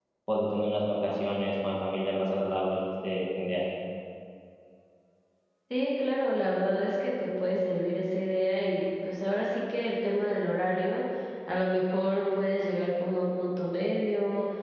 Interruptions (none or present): none